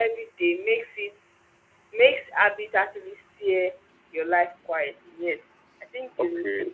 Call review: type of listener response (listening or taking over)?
taking over